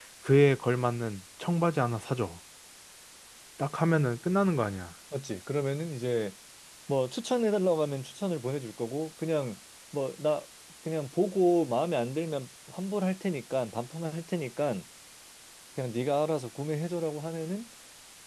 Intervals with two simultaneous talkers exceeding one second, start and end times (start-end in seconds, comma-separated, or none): none